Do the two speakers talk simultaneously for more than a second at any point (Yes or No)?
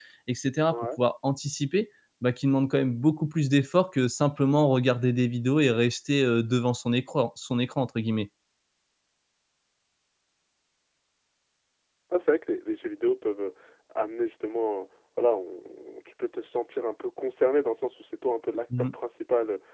No